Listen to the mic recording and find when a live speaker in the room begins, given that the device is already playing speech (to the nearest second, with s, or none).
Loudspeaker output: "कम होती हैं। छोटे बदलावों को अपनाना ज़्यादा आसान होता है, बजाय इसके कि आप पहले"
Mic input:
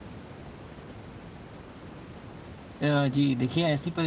3 s